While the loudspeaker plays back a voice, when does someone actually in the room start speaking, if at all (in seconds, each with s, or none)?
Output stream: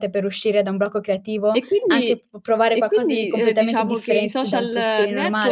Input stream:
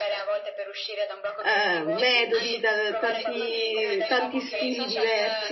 1.4 s